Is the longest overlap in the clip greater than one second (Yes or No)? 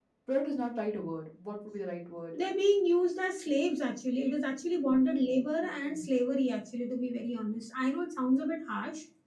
No